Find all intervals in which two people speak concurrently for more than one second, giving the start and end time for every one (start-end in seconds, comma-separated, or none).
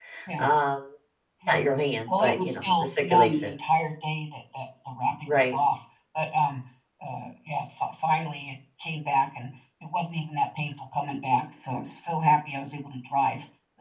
2.1-3.5